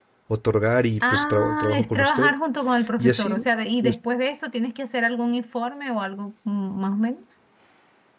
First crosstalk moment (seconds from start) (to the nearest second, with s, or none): 1 s